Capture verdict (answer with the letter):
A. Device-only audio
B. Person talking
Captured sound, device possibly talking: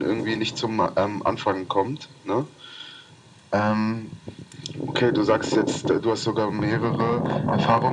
A